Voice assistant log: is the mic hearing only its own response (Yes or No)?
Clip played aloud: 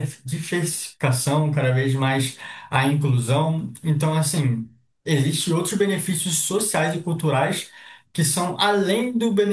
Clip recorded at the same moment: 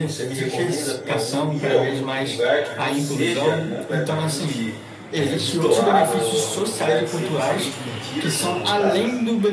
No